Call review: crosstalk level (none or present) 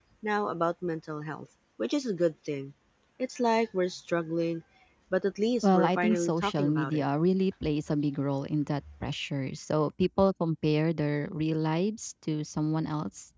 present